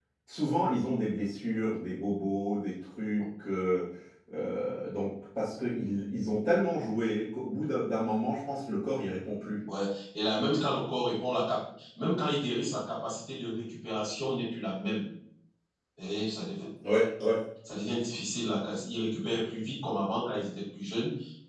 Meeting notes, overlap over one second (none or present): none